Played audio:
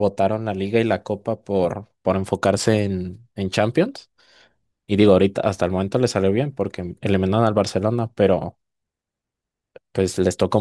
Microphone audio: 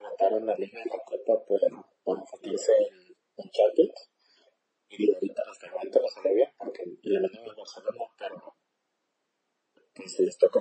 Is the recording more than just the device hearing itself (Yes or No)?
No